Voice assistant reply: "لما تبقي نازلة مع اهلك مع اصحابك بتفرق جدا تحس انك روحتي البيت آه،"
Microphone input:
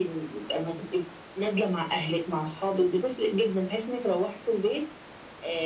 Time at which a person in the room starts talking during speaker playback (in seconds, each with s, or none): none